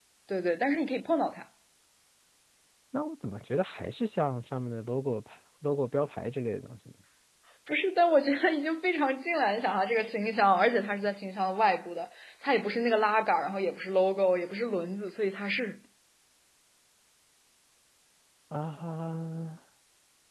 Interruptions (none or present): none